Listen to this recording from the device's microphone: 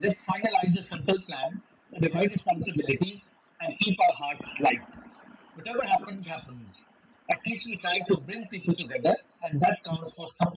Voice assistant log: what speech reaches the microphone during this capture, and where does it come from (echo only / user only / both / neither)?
echo only